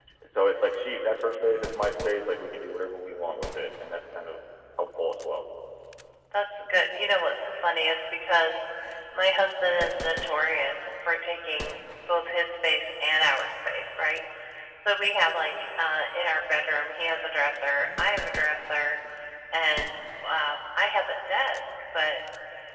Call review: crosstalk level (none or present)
none